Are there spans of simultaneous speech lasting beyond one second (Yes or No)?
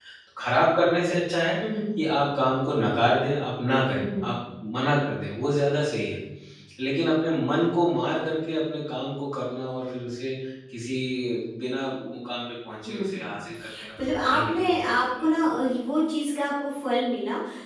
Yes